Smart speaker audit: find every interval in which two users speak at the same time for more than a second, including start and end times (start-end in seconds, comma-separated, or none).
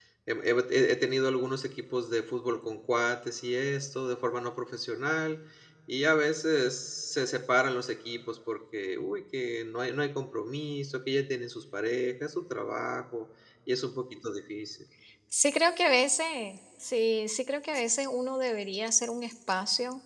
none